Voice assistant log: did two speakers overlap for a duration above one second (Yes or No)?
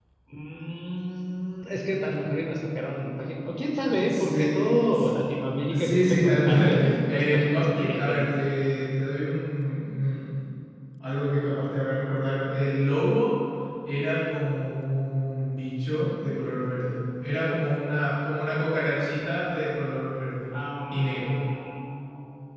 Yes